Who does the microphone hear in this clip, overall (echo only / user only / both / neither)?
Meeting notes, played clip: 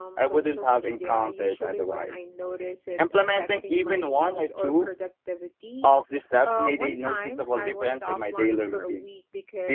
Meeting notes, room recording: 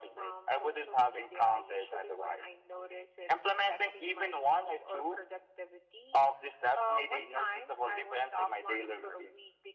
echo only